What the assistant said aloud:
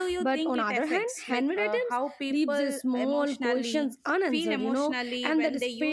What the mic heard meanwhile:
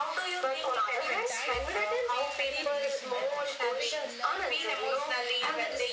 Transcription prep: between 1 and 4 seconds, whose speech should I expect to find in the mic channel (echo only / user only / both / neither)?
both